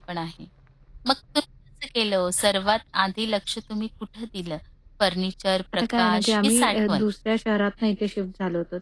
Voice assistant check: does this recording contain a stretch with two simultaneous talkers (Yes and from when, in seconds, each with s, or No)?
Yes, from 5.7 s